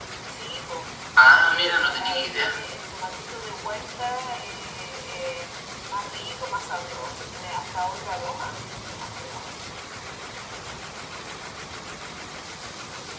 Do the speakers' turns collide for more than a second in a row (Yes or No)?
Yes